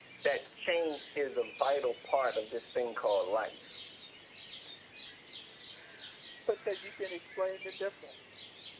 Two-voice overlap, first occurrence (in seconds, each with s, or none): none